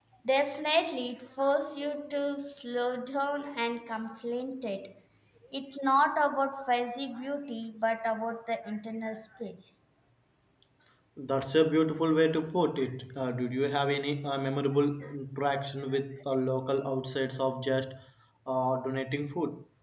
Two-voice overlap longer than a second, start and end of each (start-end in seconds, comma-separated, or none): none